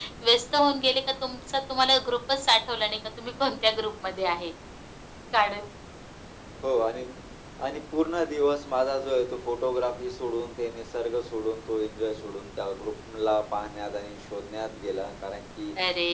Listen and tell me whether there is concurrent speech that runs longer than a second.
No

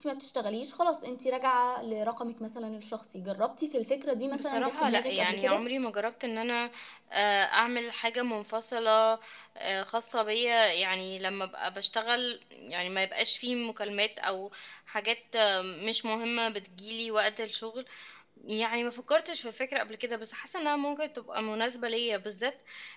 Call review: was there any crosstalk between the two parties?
Yes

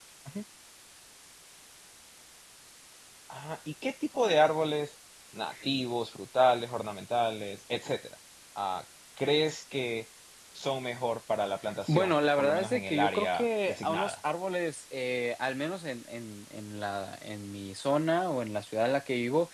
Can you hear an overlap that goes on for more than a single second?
Yes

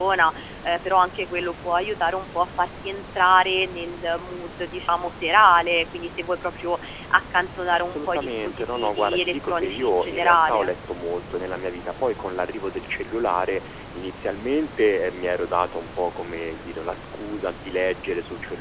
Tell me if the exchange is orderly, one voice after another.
No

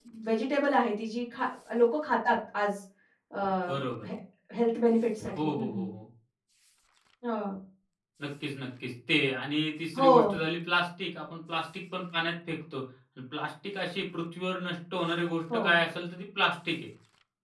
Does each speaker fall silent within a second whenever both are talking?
Yes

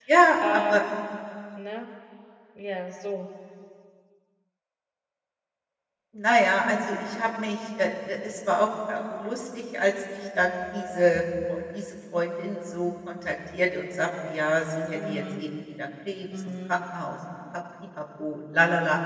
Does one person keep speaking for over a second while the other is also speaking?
No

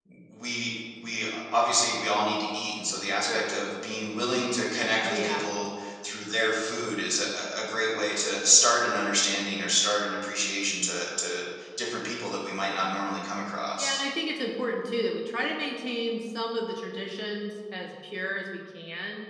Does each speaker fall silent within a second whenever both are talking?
Yes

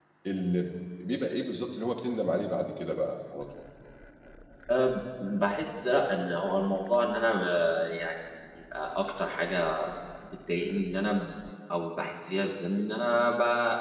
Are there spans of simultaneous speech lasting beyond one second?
No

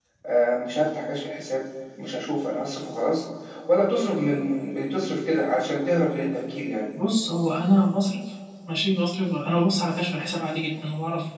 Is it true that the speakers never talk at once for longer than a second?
Yes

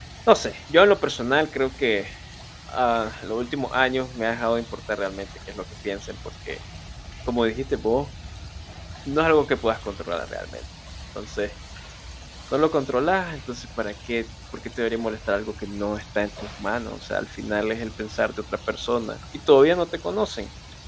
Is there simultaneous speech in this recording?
No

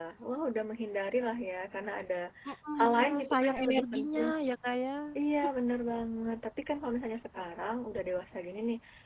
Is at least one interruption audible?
Yes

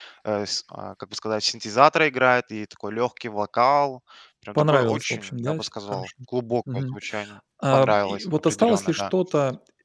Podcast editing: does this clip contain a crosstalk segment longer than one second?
Yes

